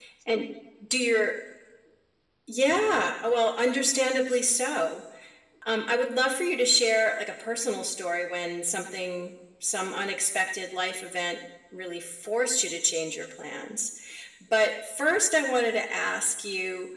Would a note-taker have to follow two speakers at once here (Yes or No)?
No